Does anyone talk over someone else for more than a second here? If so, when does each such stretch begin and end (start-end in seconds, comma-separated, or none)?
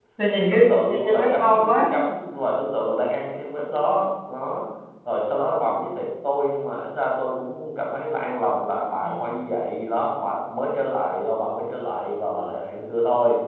0.5-1.9